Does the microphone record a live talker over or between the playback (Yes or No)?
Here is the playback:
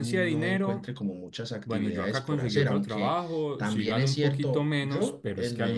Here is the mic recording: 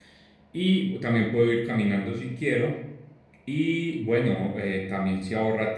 Yes